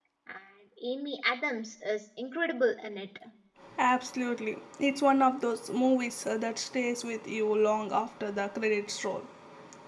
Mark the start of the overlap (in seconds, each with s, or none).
none